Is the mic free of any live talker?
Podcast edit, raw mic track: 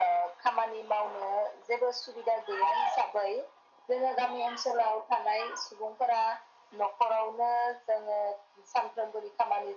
Yes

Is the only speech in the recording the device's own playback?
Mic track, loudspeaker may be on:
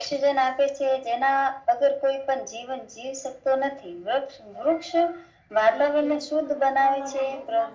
No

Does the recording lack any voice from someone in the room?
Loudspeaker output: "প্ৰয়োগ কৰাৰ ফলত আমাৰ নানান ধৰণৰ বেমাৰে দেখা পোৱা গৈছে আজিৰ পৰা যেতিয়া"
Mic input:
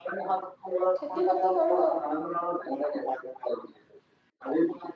No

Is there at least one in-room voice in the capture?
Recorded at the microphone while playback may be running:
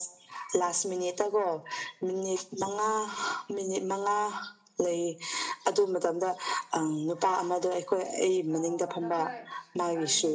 Yes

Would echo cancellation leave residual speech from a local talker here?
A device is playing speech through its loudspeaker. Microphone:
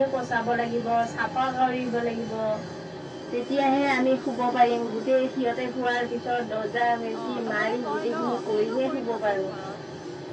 Yes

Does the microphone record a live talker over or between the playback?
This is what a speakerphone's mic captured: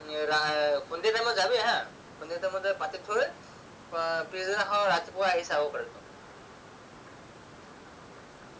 No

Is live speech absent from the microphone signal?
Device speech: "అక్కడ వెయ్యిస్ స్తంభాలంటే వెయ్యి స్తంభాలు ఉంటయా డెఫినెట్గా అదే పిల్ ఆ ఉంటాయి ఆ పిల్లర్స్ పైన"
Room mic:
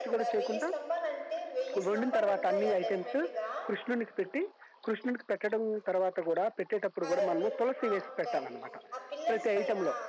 No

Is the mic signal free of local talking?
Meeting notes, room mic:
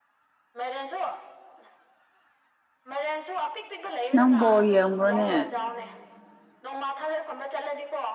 No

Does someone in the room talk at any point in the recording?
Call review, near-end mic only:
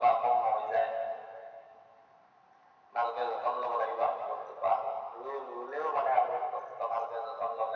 No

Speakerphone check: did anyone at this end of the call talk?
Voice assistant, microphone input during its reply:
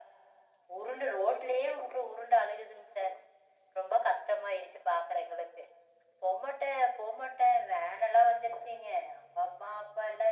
No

